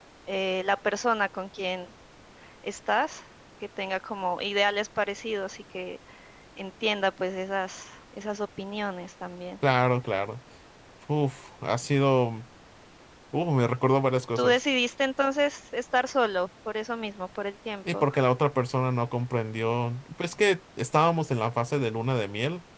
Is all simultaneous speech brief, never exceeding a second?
Yes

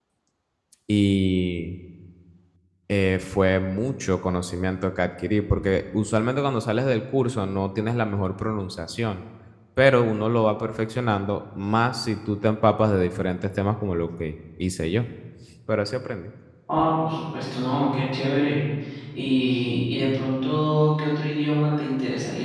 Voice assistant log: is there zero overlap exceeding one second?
Yes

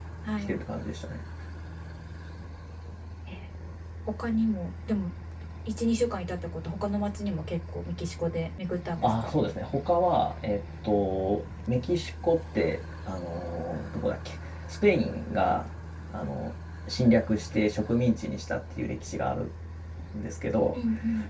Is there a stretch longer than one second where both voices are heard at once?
No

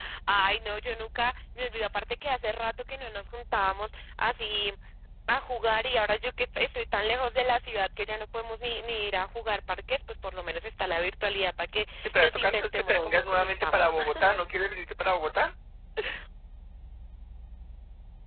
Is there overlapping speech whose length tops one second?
Yes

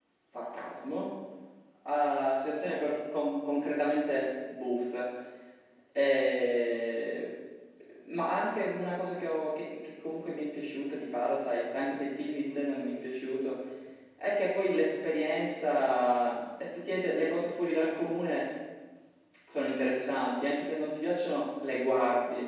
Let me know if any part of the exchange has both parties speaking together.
No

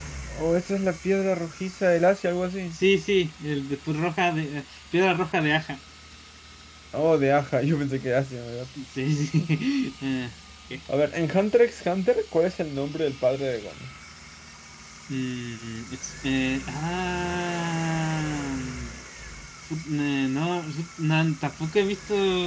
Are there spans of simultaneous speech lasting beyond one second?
No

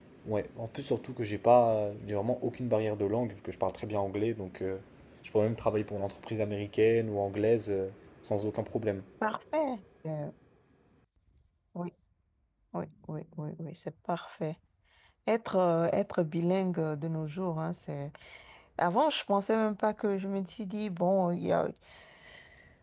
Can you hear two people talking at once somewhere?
No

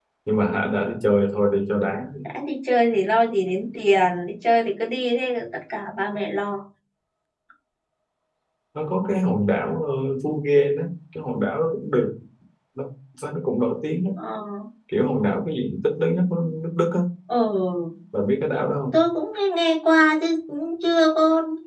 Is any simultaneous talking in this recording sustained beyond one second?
No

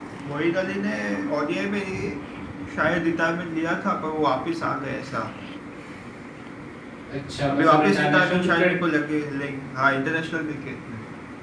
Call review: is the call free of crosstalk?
No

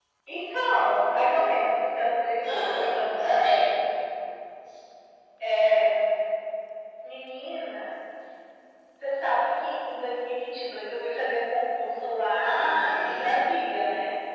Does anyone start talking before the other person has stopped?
Yes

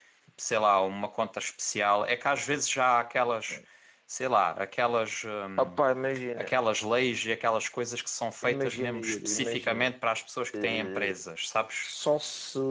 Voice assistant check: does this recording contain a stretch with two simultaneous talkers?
Yes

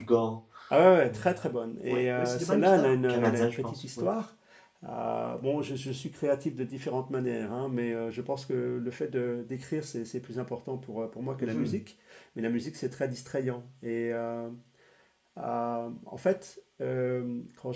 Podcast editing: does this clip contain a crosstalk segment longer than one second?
Yes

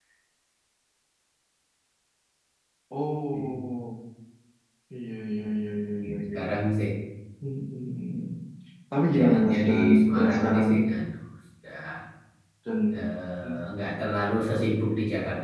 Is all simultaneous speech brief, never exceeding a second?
No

